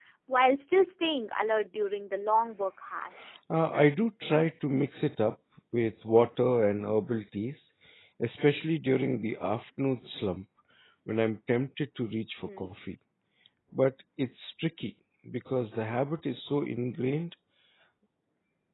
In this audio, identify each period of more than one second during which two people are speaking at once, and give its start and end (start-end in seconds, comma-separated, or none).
none